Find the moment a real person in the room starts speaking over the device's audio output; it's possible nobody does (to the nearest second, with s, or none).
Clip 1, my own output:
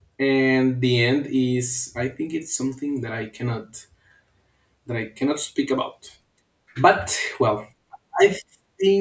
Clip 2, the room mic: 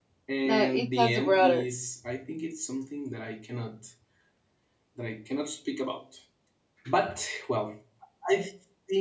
0 s